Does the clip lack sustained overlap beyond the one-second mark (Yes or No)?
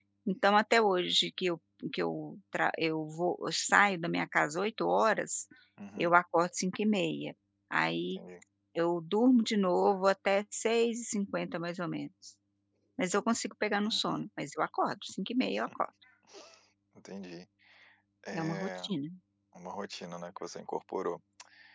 Yes